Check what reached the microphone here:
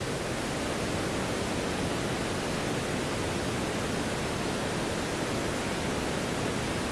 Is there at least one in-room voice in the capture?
No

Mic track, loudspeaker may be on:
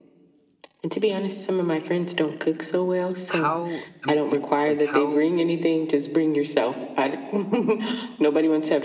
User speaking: Yes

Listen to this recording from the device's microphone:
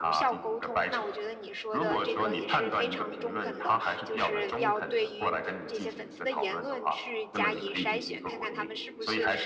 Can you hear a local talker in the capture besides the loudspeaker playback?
Yes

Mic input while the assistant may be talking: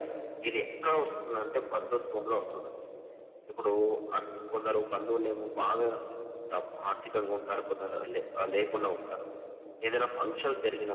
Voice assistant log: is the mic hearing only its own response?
Yes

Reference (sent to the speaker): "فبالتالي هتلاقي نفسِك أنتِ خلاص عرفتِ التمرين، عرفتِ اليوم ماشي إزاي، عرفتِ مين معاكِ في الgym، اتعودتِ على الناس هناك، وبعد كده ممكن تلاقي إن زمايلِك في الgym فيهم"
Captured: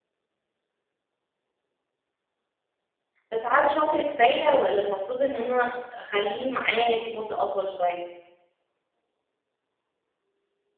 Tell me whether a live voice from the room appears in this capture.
Yes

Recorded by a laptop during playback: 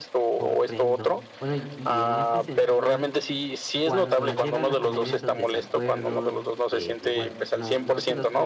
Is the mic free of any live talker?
No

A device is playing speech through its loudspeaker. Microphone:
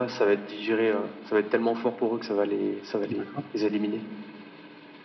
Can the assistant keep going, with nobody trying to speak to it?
No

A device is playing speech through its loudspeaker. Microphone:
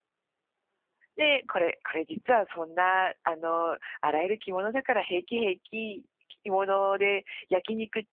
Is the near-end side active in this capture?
Yes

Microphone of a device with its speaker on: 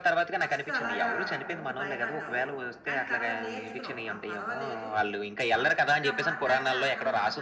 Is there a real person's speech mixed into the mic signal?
Yes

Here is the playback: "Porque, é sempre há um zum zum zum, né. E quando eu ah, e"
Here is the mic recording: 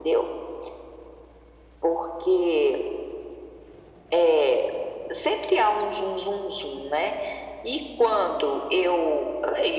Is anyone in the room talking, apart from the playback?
No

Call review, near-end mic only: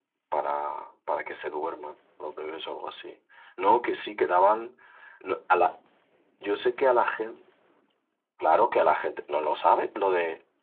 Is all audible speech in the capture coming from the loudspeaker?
Yes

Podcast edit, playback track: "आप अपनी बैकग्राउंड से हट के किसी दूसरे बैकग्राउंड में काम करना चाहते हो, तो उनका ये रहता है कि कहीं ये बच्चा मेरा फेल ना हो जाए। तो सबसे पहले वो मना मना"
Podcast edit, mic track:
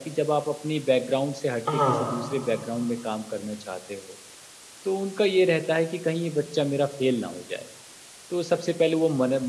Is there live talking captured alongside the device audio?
Yes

